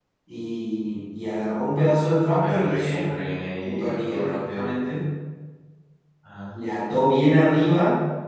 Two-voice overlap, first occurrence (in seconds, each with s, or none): 2.4 s